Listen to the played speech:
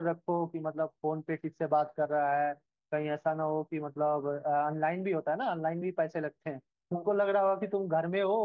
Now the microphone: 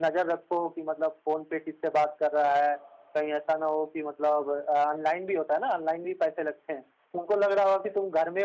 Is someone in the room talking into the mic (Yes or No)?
Yes